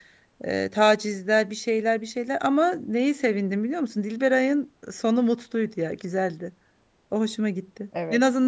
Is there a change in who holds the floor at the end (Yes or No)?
No